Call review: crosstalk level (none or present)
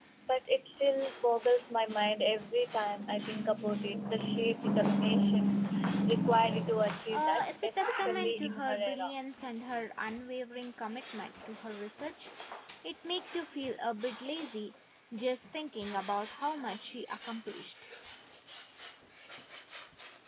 present